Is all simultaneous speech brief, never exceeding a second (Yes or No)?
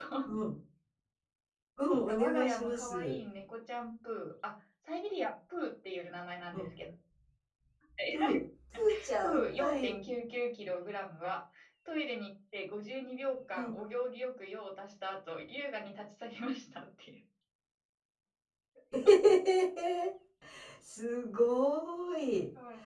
No